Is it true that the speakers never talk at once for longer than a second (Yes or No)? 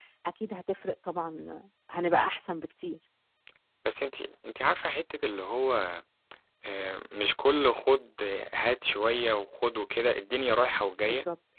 Yes